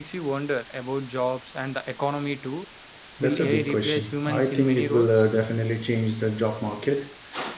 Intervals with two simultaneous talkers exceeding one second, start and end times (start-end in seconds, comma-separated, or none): 3.2-5.1